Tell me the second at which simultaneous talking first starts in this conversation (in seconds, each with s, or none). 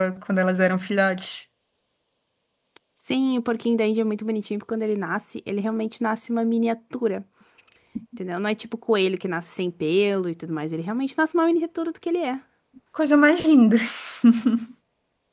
none